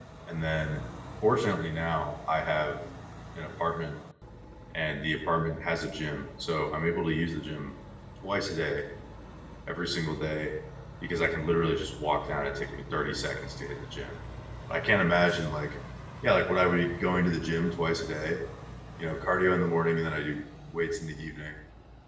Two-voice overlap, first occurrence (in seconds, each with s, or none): none